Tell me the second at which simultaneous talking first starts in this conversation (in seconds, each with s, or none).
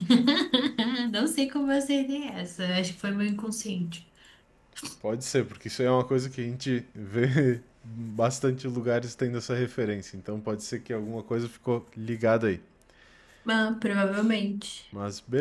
none